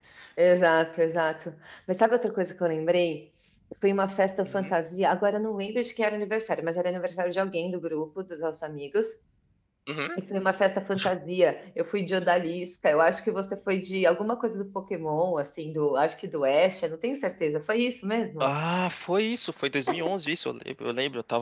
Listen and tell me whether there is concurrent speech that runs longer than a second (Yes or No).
No